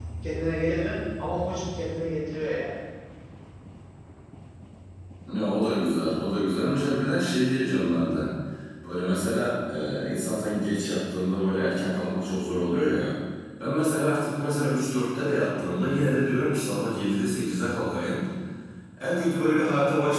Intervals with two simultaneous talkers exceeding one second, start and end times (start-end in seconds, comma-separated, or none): none